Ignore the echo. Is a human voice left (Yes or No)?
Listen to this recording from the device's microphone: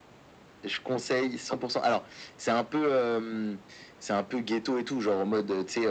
No